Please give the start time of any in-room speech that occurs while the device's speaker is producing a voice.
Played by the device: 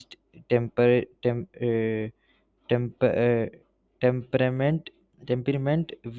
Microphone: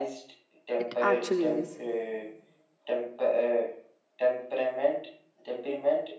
0.8 s

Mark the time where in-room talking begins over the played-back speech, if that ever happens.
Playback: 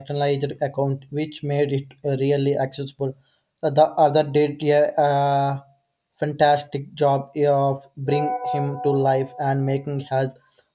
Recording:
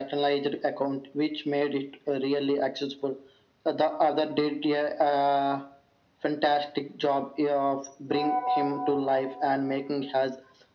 none

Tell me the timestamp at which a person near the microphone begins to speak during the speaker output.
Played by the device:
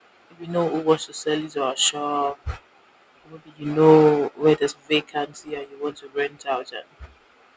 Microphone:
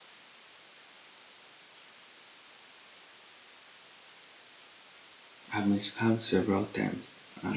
5.5 s

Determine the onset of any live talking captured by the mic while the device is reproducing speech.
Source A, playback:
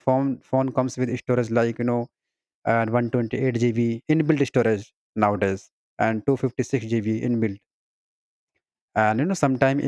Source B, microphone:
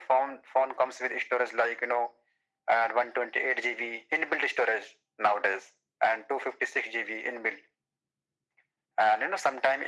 none

